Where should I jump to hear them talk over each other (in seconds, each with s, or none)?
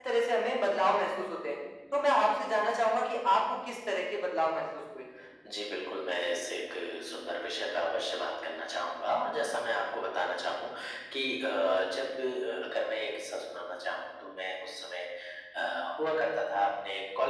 none